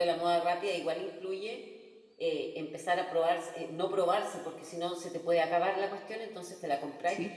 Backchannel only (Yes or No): Yes